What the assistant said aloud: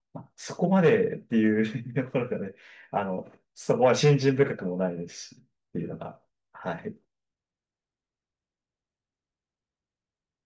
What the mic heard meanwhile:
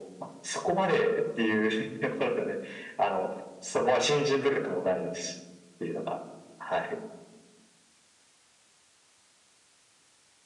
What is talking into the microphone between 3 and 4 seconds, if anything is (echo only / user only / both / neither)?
echo only